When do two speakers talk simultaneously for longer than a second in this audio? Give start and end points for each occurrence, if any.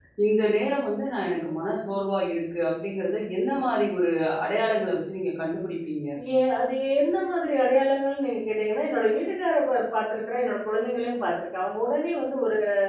none

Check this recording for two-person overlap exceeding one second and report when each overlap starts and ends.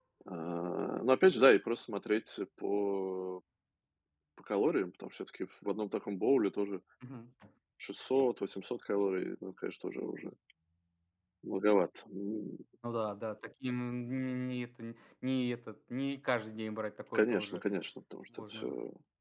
none

